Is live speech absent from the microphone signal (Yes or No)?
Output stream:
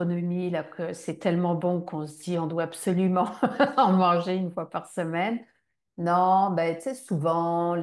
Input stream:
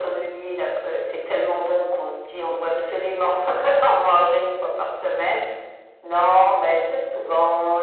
Yes